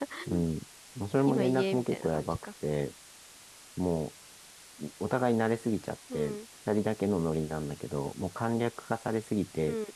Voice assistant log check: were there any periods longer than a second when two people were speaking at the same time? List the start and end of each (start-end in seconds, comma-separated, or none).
1.3-2.5